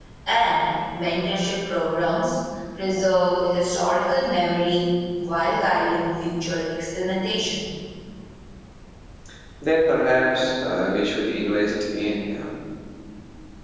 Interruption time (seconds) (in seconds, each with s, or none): none